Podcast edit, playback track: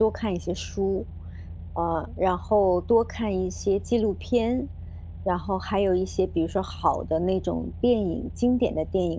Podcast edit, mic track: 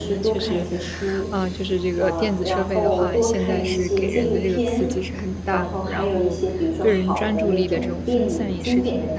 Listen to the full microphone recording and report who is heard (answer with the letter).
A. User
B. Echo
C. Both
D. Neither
C